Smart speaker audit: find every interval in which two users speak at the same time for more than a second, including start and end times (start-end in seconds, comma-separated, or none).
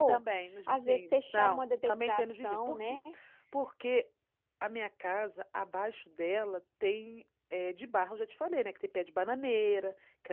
0.7-3.0